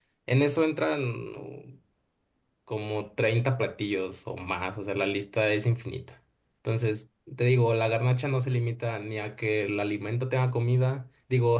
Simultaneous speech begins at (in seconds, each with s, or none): none